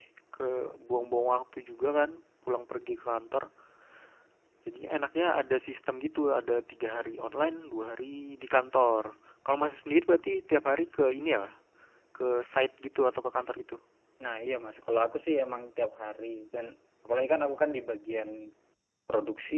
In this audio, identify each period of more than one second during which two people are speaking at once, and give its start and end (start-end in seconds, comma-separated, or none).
none